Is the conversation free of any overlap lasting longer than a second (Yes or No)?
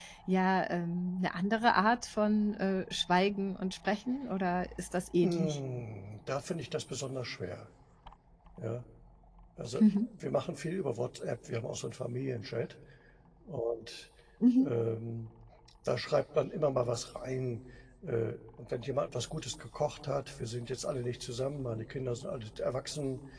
Yes